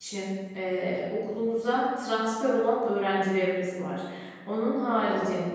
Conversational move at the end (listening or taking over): listening